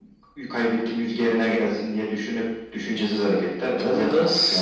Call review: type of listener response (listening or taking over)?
taking over